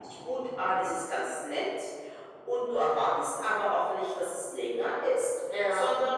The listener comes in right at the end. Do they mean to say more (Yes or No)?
No